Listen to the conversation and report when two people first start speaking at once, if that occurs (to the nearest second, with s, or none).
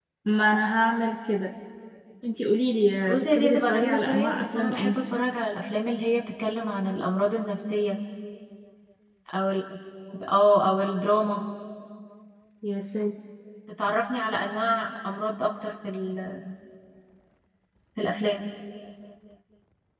3 s